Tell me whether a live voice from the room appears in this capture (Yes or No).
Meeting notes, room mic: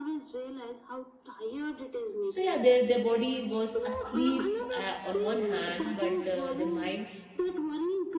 Yes